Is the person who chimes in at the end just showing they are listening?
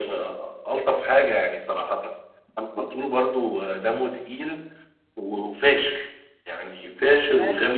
No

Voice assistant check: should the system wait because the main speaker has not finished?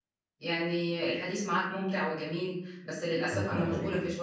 Yes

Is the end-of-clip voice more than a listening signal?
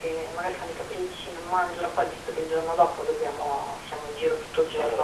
Yes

